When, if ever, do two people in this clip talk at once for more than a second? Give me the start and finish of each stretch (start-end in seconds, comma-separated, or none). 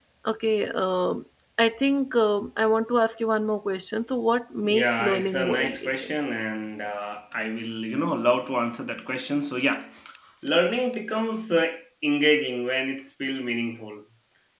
4.6-6.1